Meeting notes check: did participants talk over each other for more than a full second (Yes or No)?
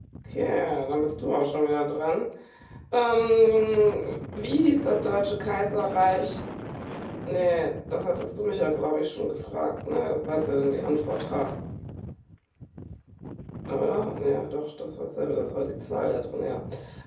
No